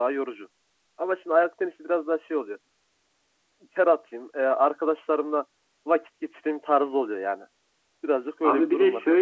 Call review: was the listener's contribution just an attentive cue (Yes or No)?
No